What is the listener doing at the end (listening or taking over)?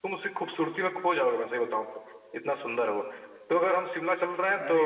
listening